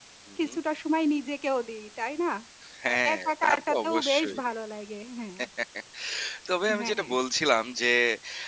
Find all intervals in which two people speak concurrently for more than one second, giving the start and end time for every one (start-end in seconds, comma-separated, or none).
2.9-4.4